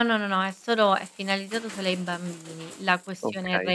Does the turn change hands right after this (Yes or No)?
No